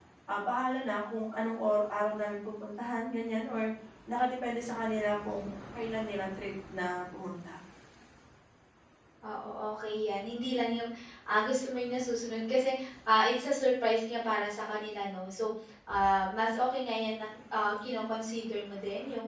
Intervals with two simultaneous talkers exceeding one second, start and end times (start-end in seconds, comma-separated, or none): none